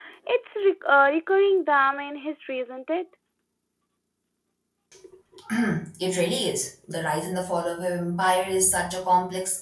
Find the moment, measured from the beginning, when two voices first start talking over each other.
none

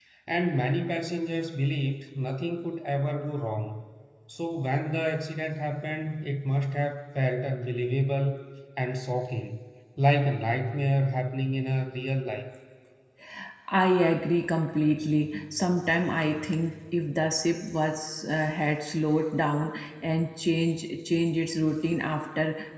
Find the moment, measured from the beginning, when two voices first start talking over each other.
none

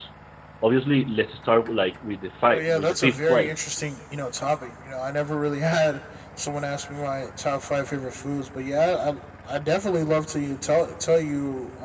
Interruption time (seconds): 2 s

